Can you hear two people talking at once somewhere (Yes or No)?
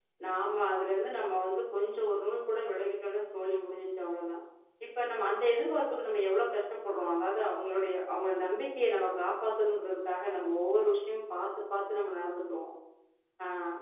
No